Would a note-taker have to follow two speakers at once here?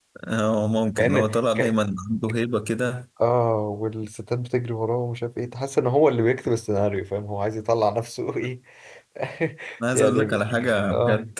Yes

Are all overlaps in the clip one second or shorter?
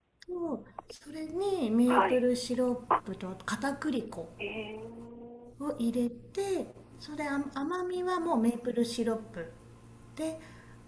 Yes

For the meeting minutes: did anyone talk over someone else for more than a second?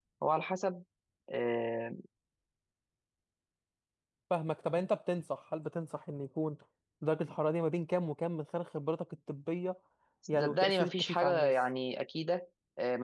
Yes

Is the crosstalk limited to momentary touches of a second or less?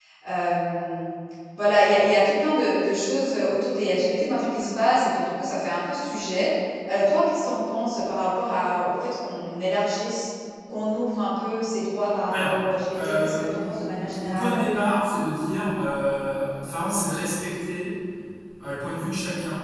No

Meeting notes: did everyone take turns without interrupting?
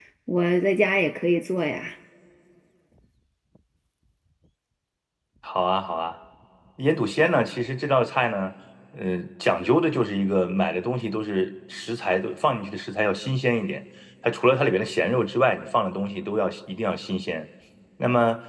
Yes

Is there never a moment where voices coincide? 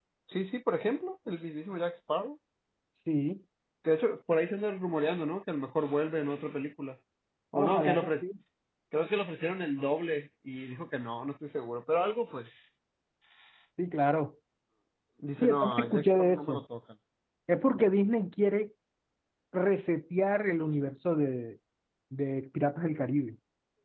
No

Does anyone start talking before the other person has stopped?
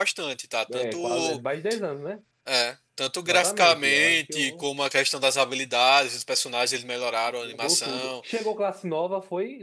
Yes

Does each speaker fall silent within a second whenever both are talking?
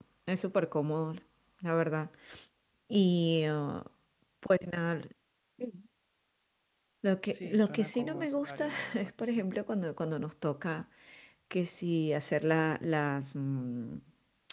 No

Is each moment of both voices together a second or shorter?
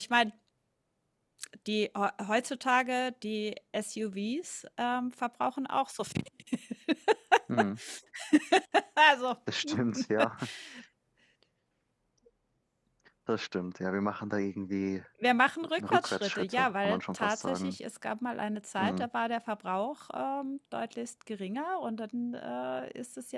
No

